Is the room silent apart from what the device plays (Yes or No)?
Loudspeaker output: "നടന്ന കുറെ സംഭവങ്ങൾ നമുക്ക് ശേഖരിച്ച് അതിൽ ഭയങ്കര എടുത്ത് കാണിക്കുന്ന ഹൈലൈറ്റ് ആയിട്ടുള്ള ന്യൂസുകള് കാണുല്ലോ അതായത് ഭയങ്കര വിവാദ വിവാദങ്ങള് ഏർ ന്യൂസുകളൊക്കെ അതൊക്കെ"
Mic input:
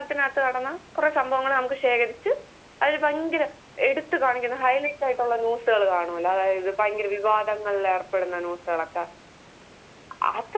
Yes